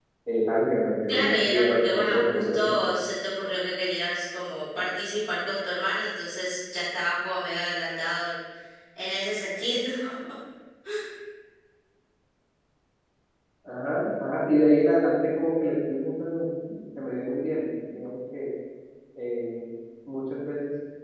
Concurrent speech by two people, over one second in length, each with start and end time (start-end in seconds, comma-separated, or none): 1.1-2.8